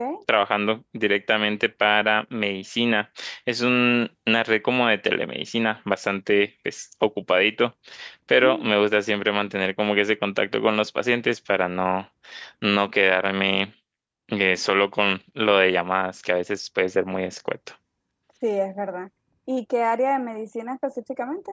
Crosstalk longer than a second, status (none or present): none